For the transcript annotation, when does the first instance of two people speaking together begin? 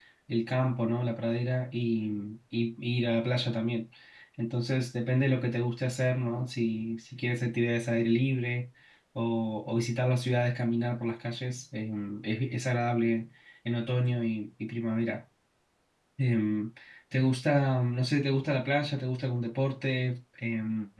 none

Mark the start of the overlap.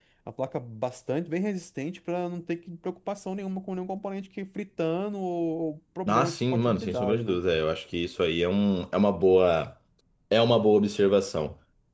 6.1 s

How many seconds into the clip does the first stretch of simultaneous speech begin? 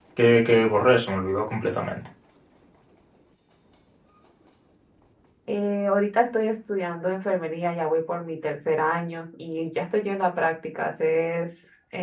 none

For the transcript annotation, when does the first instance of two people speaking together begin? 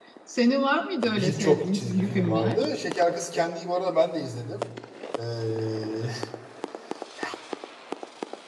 1.1 s

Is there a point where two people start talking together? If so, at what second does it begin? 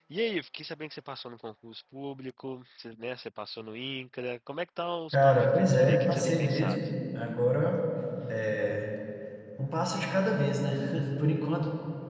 5.1 s

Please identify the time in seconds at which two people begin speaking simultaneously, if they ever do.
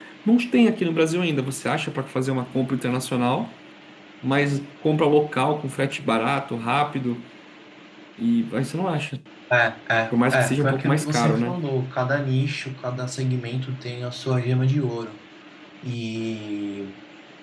10.1 s

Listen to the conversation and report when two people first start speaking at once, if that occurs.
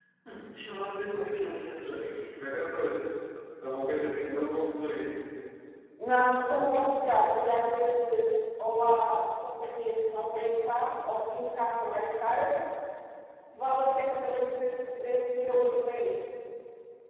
none

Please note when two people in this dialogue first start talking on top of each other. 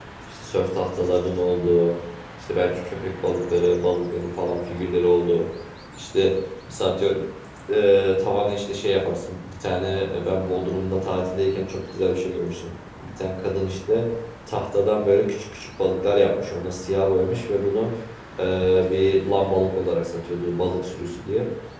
none

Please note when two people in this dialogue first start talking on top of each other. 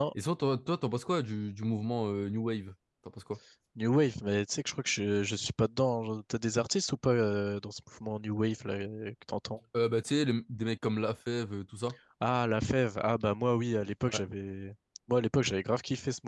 none

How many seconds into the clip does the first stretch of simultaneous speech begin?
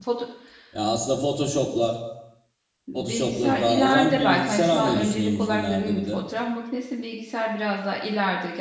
2.9 s

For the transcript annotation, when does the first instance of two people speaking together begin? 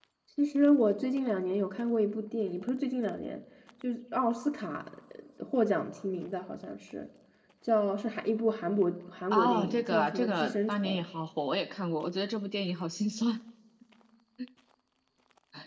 9.3 s

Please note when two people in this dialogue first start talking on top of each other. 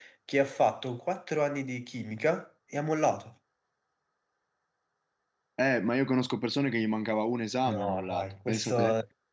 7.7 s

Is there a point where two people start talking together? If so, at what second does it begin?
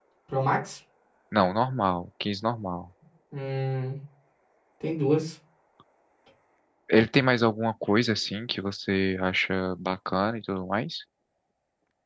none

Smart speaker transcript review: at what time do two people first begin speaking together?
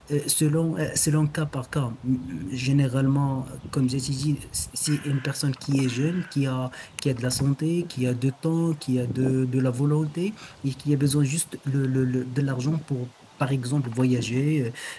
none

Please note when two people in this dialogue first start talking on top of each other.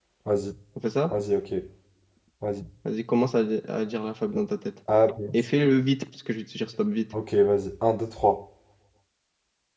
none

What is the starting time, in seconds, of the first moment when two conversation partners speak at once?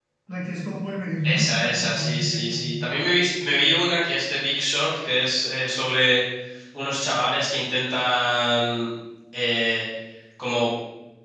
1.2 s

